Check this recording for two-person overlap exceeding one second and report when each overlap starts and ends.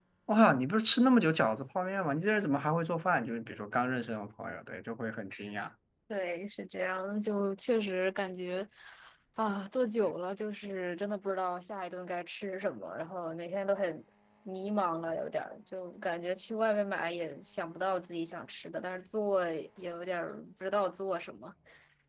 none

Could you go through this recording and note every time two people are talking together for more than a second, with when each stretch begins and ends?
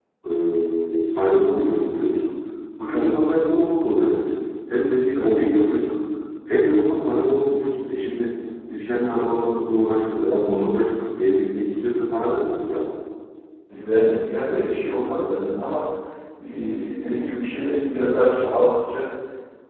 none

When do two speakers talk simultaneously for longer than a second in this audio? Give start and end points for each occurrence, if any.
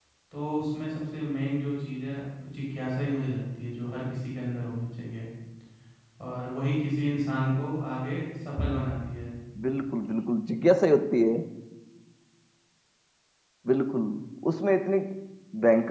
none

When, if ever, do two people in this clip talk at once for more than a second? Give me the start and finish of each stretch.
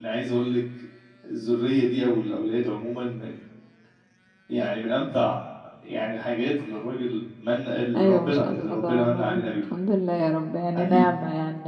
7.9-9.4

